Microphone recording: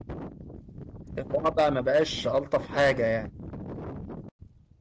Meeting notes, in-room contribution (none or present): present